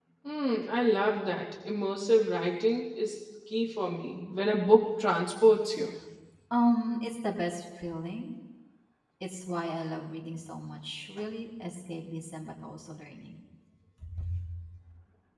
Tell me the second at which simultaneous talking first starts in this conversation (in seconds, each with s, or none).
none